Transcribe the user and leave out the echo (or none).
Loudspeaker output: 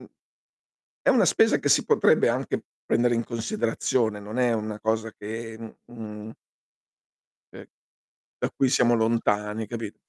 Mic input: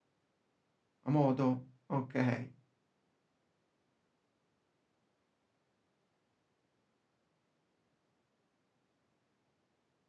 A modo, okay.